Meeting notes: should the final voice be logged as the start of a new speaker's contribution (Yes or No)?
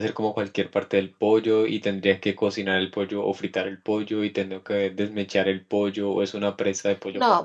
Yes